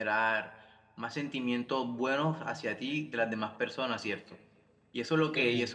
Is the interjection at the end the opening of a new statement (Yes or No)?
No